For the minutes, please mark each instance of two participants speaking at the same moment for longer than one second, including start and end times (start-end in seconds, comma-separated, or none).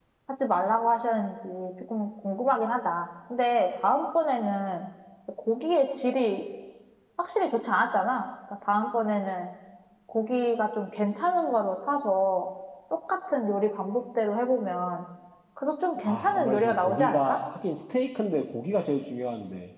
16.1-17.4